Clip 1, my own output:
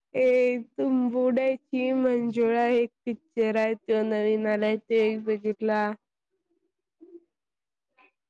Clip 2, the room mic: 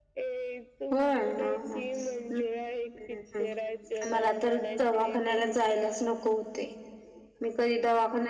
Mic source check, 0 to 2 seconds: both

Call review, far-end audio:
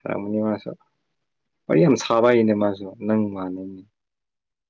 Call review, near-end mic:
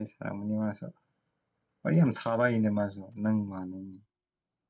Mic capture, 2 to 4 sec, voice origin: echo only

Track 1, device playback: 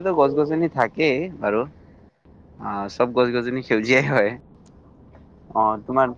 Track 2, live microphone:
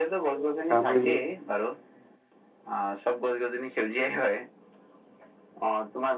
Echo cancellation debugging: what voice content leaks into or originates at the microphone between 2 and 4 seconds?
echo only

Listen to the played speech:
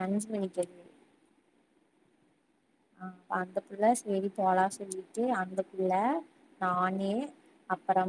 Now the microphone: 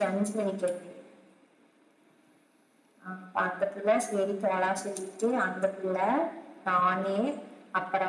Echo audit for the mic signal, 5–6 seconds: echo only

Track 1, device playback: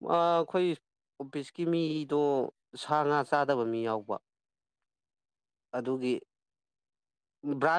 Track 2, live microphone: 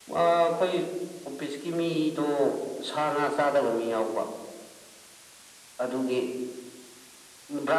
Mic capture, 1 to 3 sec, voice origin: echo only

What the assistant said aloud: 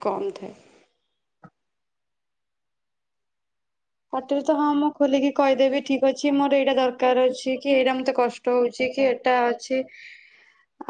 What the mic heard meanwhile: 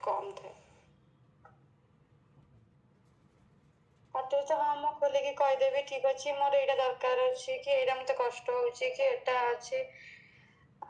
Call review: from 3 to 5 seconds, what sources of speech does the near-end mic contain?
echo only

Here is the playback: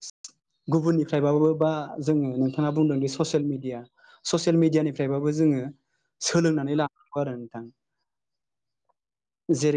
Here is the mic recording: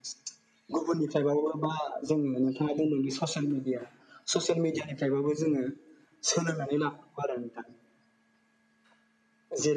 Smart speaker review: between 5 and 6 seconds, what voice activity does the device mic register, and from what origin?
echo only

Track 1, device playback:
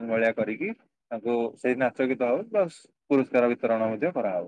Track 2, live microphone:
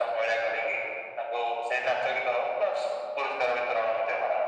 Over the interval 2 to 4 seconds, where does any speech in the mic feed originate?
echo only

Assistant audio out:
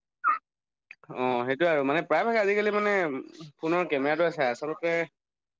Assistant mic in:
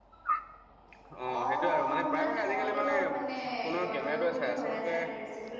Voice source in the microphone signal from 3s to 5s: both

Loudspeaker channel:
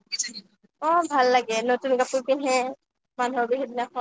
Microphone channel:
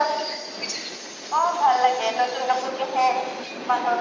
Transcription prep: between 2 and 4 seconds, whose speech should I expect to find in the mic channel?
echo only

